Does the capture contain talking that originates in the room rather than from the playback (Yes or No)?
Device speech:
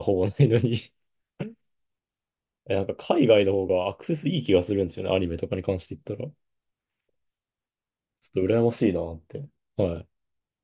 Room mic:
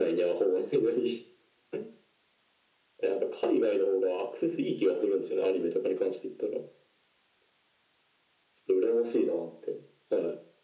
No